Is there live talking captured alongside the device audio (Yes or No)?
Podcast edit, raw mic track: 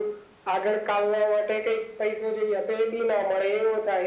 No